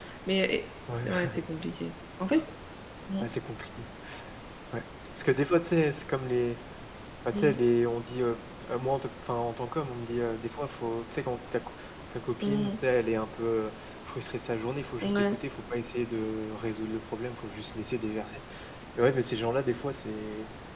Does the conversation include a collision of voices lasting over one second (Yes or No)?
No